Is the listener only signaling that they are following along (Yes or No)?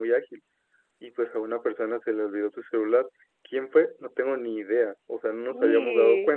Yes